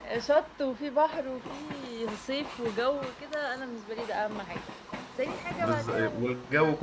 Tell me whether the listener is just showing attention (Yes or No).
No